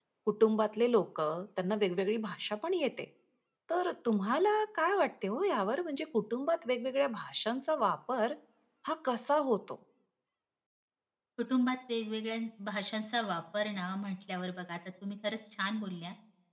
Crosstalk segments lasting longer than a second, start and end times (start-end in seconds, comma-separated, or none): none